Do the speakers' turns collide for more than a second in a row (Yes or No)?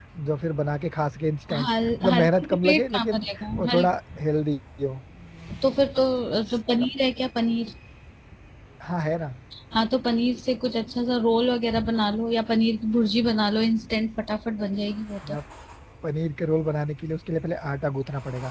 Yes